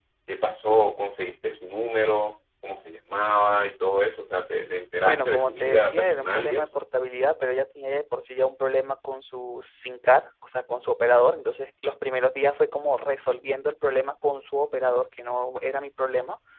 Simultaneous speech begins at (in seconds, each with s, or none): 5.0 s